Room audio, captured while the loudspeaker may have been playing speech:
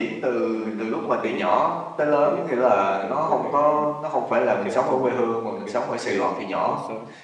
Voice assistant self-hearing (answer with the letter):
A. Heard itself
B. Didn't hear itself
A